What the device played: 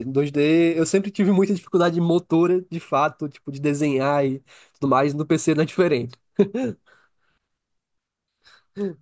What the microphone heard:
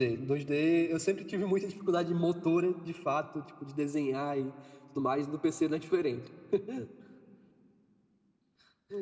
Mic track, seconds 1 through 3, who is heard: echo only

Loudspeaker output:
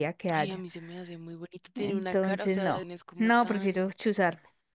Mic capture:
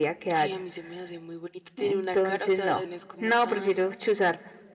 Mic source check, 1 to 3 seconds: echo only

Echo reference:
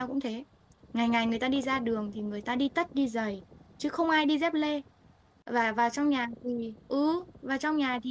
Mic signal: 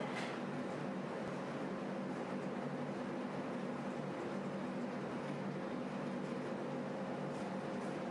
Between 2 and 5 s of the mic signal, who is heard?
neither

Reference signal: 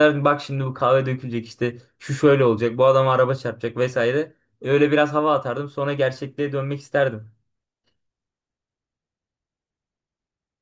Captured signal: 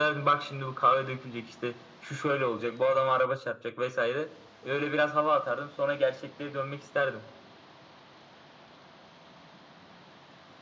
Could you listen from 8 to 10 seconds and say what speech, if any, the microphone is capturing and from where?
neither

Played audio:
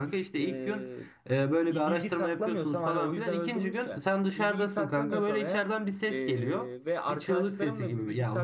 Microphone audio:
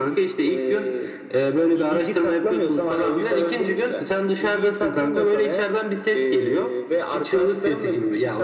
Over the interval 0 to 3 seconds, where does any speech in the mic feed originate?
echo only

